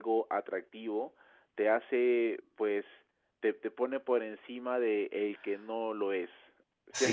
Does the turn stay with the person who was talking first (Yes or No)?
No